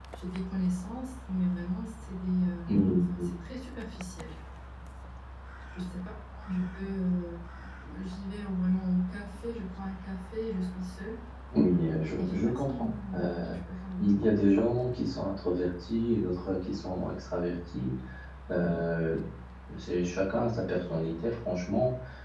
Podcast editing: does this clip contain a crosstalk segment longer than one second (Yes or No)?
Yes